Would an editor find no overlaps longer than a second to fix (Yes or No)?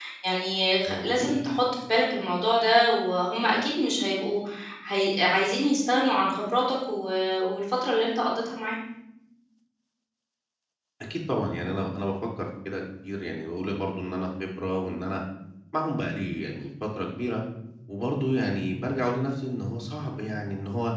Yes